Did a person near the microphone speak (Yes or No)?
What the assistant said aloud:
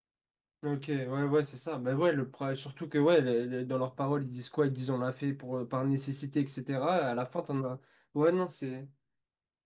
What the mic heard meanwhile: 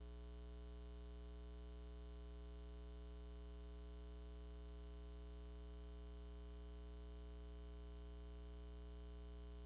No